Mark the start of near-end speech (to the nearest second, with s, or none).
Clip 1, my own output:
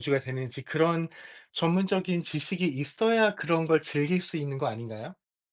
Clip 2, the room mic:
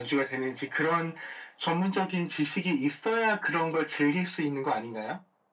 none